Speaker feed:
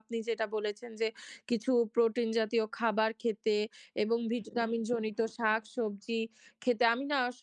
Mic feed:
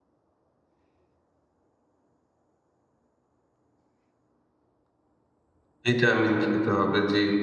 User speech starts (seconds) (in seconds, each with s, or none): 5.8 s